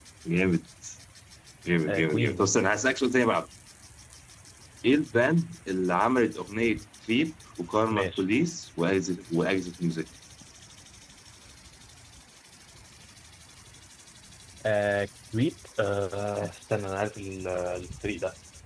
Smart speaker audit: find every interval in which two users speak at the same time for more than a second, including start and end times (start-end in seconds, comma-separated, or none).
none